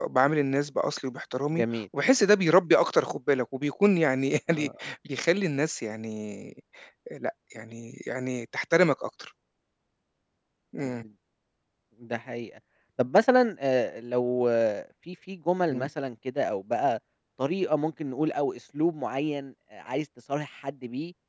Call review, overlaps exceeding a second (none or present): none